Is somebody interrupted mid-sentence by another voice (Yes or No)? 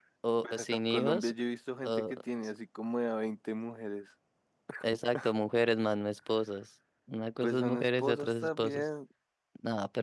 Yes